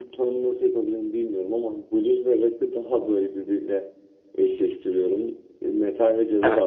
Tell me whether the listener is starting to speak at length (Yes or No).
No